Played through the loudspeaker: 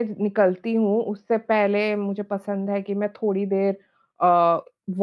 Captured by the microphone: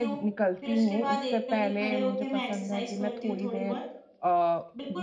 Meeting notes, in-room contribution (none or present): present